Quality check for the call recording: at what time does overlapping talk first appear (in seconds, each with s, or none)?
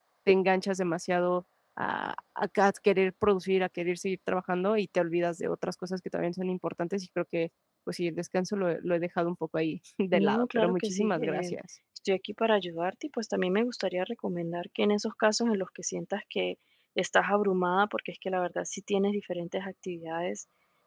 10.1 s